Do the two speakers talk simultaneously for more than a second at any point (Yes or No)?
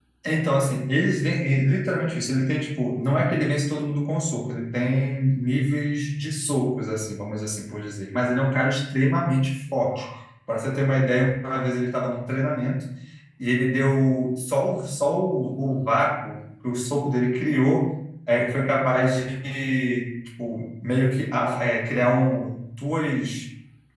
No